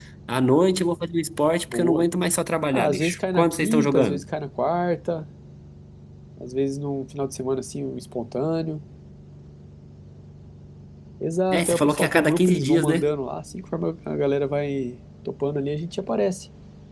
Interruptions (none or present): present